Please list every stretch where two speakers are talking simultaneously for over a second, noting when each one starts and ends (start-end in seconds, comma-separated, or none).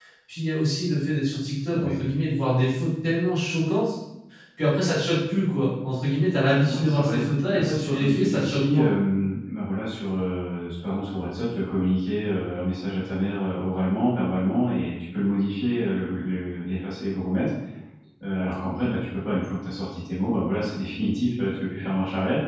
6.7-8.9